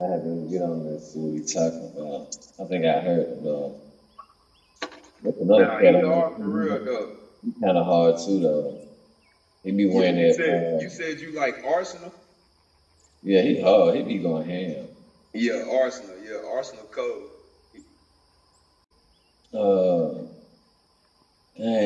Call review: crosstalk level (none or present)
present